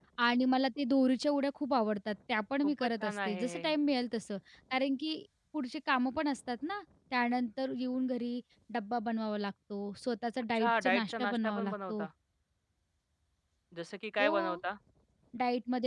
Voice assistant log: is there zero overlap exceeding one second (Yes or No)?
No